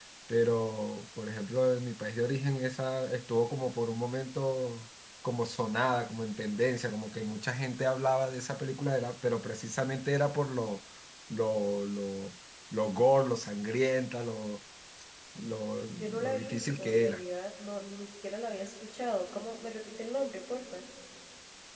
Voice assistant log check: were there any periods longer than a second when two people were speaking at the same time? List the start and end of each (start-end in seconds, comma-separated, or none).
16.0-17.2